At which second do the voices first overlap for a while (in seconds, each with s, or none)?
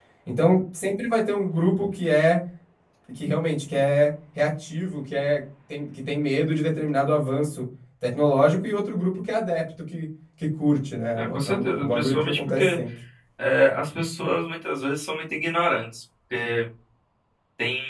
11.2 s